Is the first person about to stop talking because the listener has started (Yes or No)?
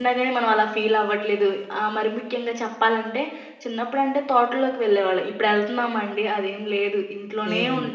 No